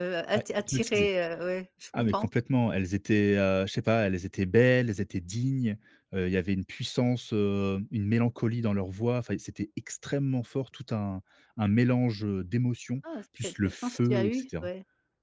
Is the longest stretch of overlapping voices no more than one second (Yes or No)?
No